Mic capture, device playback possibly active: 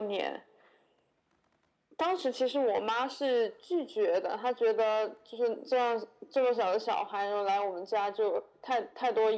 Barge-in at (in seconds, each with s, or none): none